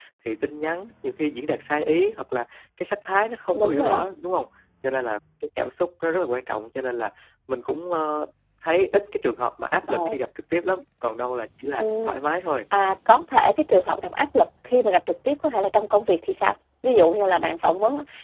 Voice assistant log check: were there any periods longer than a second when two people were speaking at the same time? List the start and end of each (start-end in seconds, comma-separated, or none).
none